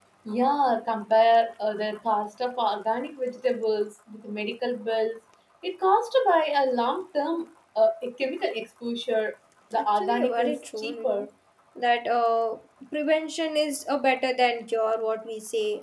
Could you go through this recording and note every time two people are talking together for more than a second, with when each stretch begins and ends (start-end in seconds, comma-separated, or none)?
9.8-11.3